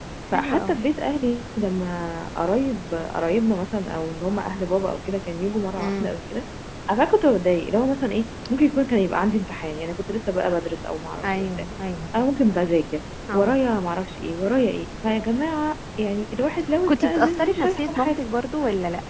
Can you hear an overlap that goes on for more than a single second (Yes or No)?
Yes